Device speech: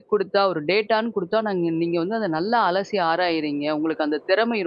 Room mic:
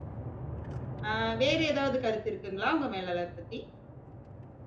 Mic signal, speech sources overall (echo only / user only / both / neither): user only